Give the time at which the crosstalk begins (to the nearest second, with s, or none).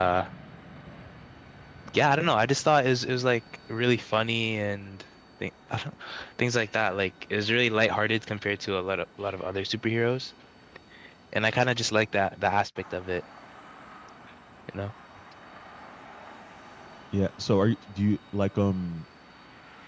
none